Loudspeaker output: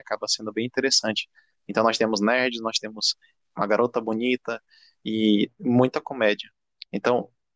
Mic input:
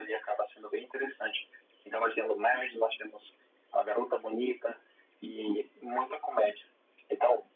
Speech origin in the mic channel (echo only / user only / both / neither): echo only